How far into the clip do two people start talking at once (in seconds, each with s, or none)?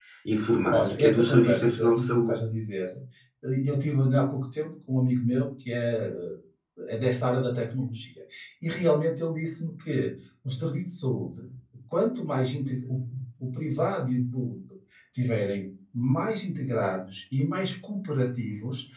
0.7 s